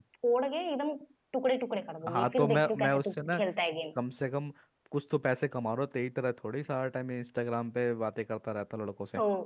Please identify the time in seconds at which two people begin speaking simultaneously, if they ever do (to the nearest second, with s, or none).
2 s